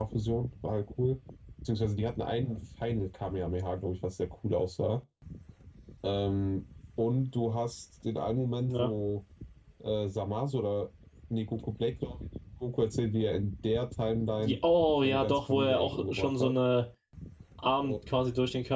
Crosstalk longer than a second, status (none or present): present